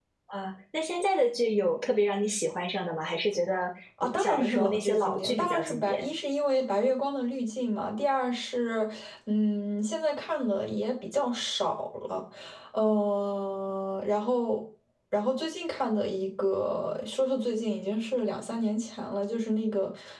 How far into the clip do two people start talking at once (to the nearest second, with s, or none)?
4 s